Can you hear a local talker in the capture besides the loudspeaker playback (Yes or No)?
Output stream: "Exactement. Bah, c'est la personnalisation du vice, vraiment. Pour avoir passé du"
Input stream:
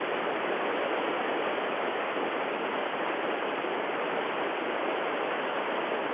No